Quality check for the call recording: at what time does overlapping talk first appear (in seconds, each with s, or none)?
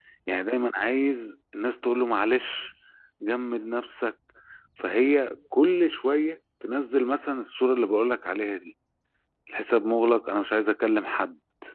none